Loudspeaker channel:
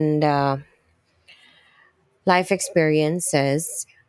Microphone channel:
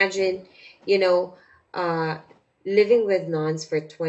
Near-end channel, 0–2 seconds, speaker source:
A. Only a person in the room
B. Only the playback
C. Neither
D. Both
A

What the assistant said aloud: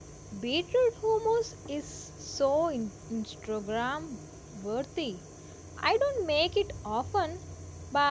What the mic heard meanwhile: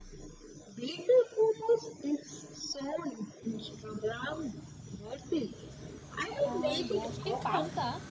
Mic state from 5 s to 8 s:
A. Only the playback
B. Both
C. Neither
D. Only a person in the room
B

